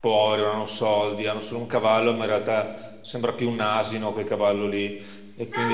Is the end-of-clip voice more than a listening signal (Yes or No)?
Yes